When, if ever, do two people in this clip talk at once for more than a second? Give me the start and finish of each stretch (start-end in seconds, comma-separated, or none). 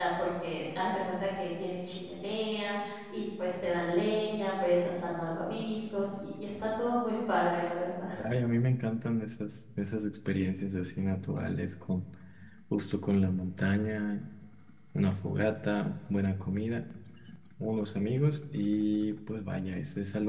none